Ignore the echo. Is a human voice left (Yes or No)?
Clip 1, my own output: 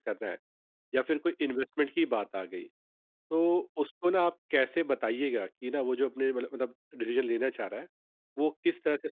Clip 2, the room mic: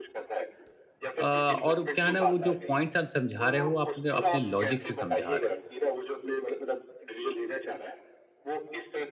Yes